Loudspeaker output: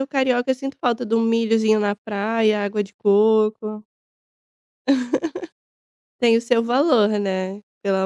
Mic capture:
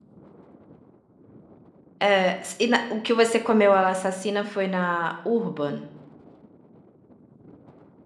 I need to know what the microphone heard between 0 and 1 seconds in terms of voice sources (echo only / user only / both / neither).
neither